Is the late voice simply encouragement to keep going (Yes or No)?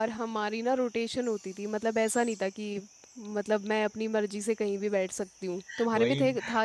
No